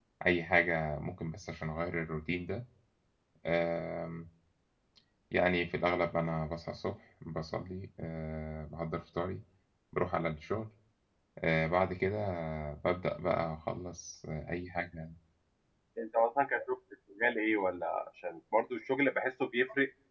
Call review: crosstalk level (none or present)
none